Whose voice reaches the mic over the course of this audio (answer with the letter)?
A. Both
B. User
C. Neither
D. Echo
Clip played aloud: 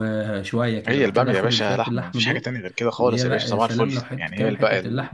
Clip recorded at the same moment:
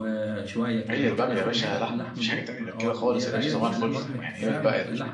A